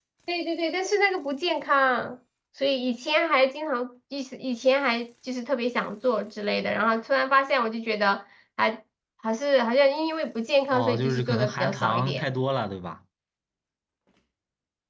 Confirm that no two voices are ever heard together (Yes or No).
No